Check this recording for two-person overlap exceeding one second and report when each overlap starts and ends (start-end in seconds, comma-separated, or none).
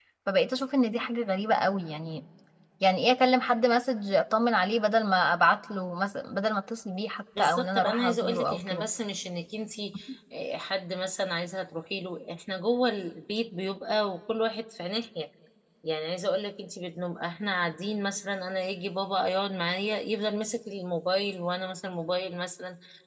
7.4-8.8